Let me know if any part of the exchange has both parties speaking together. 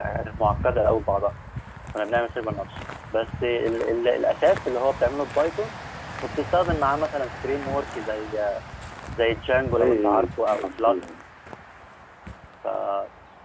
Yes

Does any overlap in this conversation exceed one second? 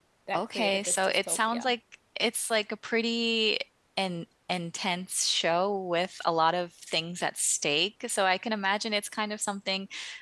Yes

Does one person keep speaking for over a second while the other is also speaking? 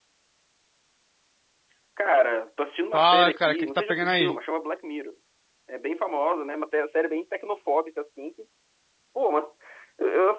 Yes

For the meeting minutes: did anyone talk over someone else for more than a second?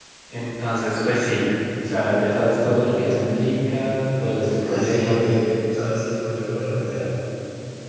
Yes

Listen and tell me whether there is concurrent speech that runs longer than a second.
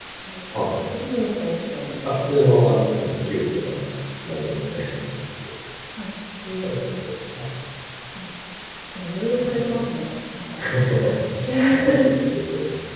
No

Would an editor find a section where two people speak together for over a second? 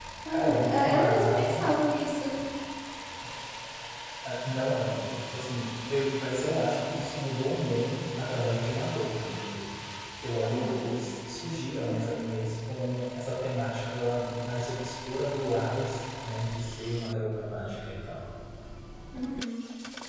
Yes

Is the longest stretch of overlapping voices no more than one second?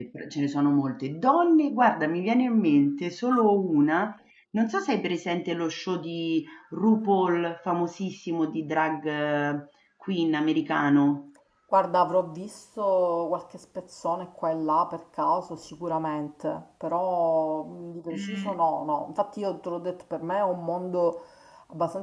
Yes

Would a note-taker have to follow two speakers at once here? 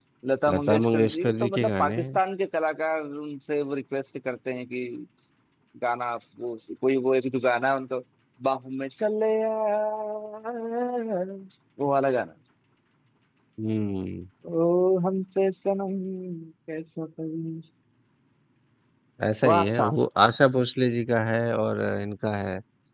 Yes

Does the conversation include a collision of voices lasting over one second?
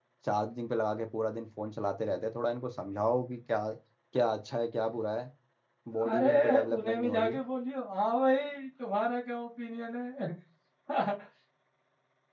Yes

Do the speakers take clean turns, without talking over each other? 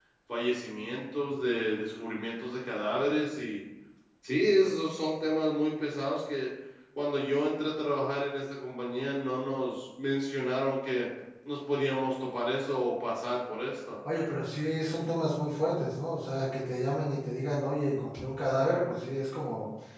Yes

